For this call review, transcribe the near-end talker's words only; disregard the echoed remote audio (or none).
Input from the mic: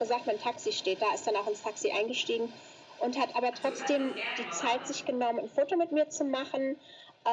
Also kannst du das gerne mal machen.